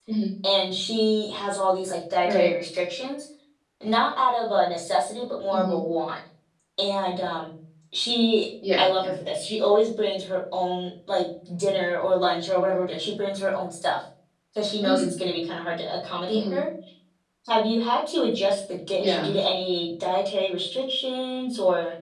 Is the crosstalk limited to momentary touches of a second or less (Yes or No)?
Yes